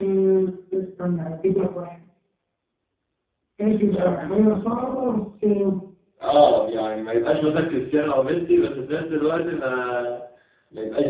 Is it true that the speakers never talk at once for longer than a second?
Yes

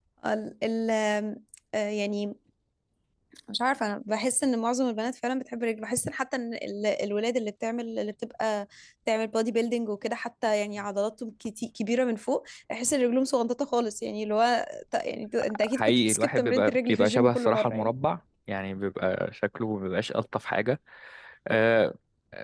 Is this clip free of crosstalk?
No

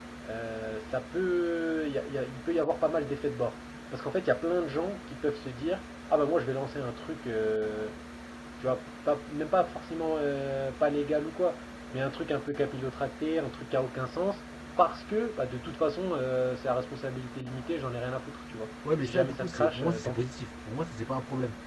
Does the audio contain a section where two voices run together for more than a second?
Yes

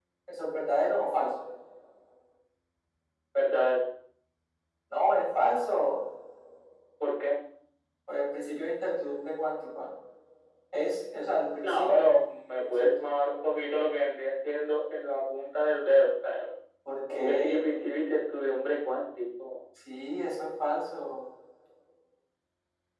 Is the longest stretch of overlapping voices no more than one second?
Yes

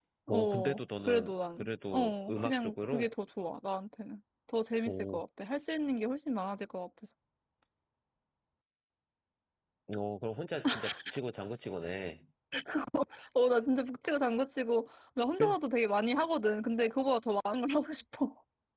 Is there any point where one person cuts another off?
Yes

